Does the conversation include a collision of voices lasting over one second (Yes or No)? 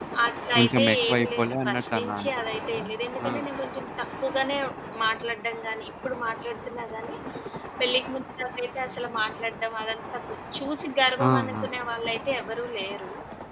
Yes